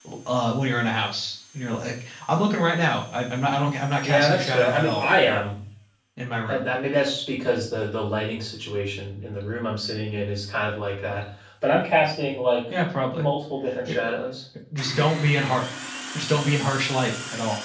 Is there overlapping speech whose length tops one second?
Yes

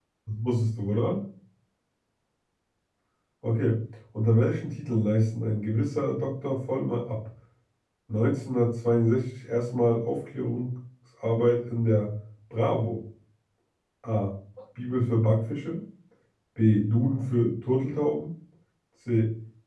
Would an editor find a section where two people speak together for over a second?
No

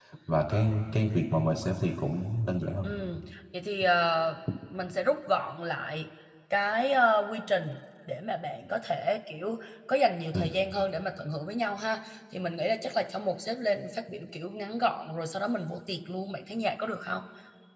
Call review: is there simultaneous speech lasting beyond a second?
No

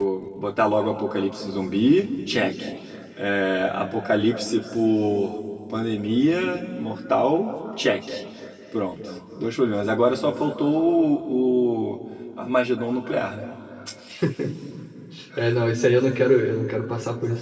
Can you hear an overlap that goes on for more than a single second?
No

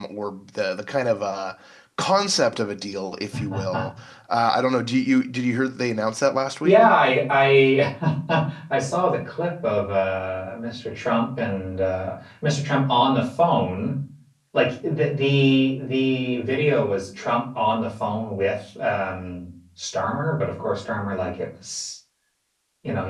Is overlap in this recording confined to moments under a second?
Yes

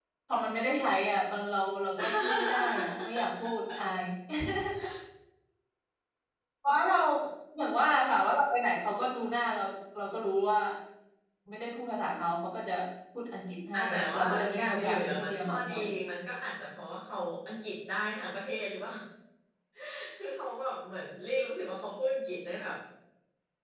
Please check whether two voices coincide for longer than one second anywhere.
Yes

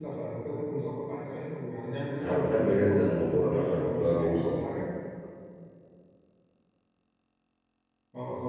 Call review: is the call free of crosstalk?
No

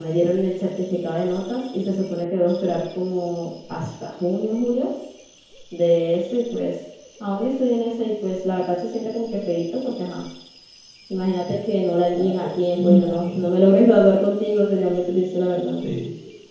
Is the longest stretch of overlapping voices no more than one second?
No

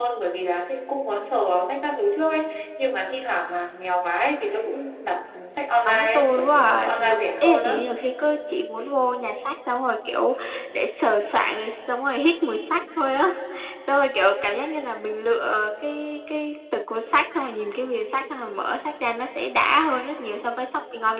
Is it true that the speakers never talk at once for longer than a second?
No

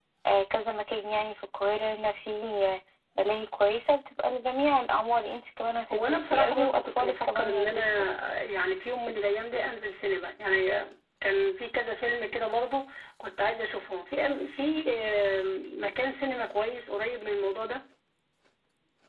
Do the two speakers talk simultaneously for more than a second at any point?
Yes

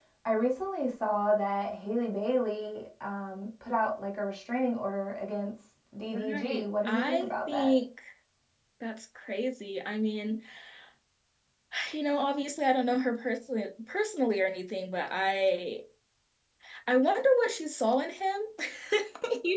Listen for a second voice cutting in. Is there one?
Yes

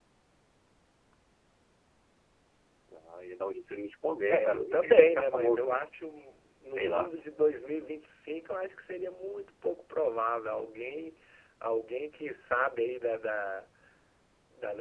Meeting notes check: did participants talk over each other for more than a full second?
Yes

